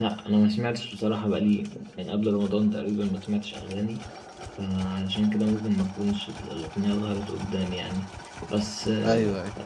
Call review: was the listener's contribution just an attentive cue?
Yes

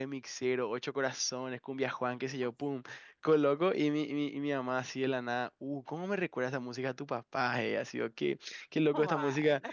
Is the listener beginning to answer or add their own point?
No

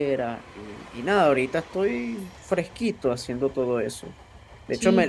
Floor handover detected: No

